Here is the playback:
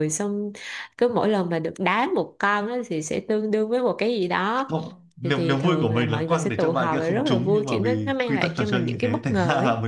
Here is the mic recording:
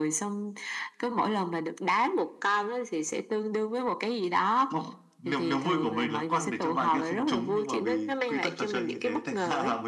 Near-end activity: none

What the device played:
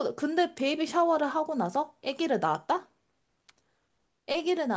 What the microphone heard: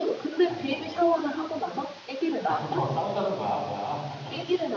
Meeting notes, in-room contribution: present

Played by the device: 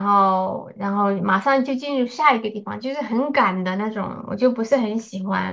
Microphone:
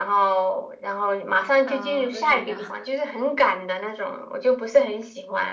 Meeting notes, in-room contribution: present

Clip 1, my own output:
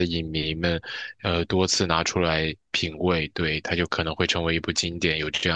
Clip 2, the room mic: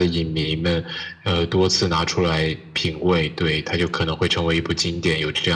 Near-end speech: none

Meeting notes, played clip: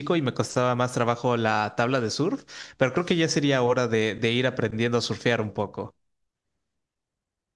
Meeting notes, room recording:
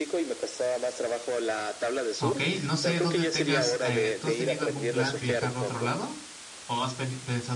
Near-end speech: present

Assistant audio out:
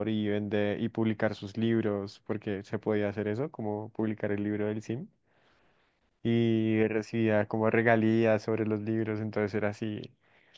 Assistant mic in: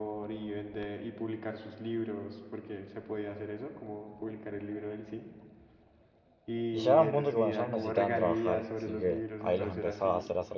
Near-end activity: present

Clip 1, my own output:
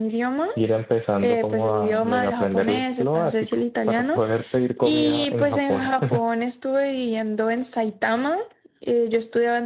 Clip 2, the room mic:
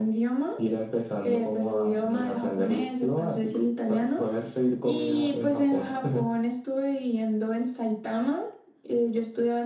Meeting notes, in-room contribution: none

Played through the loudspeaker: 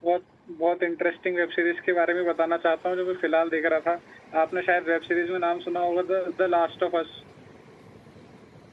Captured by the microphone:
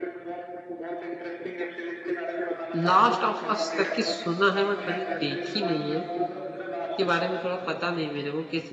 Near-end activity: present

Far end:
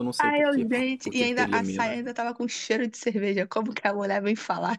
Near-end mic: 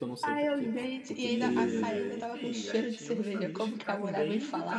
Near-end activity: present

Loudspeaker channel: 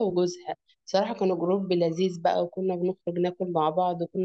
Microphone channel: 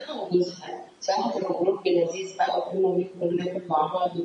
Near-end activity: none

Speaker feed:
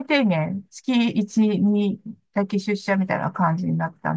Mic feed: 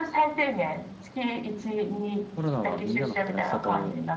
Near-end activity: present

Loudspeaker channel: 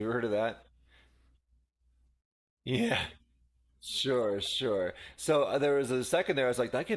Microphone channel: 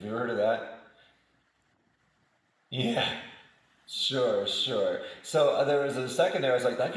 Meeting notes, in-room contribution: none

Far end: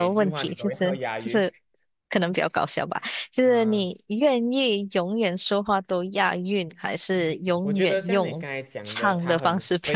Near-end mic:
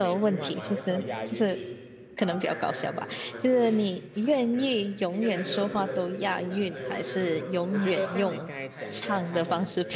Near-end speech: present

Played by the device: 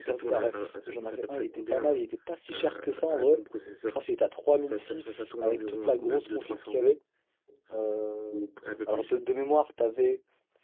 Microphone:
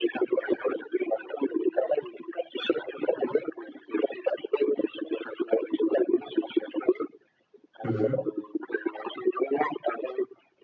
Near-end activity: present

